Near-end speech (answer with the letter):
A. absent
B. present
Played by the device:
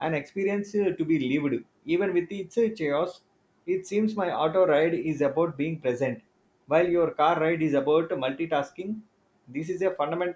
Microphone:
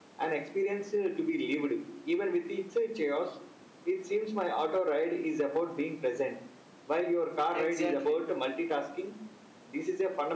B